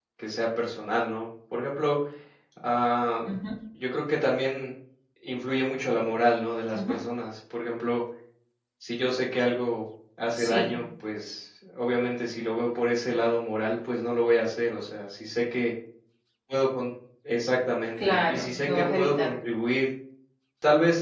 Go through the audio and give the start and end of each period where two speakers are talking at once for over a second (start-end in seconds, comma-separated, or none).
18.0-19.3